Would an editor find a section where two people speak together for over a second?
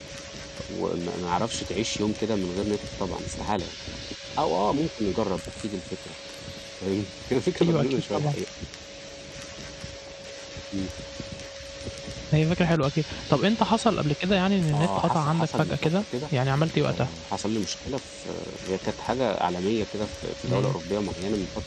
Yes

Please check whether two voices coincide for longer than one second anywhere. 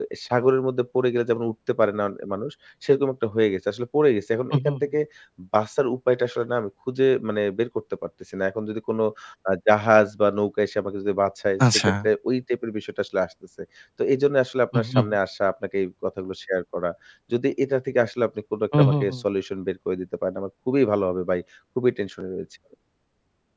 No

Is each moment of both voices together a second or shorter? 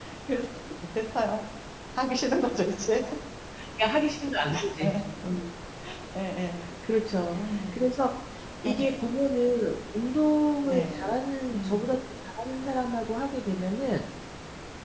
Yes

